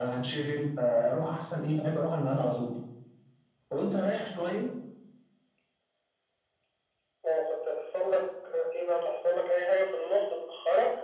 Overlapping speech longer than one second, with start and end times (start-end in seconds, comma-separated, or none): none